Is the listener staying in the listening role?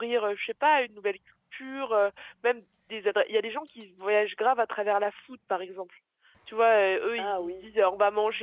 Yes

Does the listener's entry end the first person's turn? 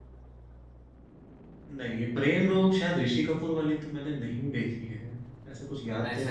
Yes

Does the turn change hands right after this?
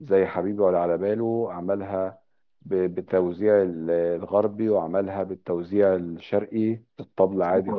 Yes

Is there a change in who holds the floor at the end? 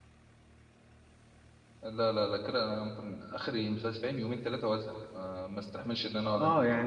Yes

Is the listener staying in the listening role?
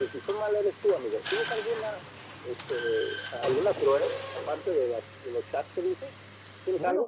No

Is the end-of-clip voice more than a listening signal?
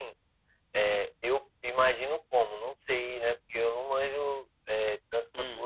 No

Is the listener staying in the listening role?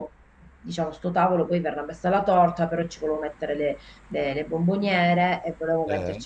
Yes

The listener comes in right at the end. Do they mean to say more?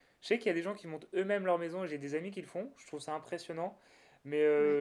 No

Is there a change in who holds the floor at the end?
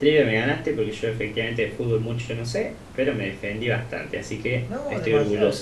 Yes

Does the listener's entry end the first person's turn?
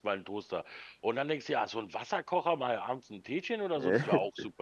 No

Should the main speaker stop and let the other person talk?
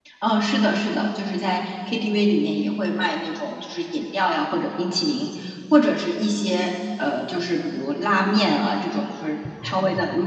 No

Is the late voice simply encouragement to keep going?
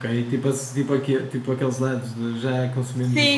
No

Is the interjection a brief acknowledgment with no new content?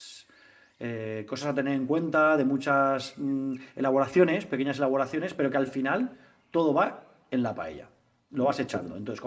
Yes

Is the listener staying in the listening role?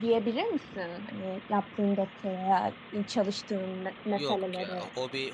No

